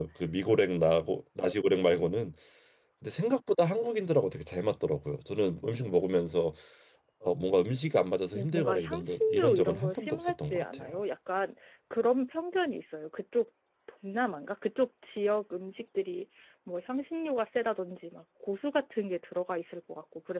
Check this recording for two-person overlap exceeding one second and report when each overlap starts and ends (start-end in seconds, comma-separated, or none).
8.3-10.9